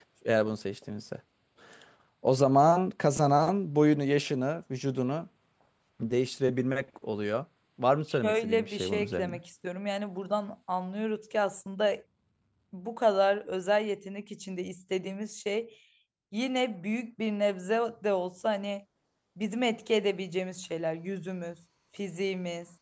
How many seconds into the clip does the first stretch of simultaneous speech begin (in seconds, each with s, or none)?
8.1 s